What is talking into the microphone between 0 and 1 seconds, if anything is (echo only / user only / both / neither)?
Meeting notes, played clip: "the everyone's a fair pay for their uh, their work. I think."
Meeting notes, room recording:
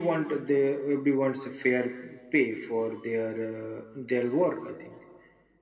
echo only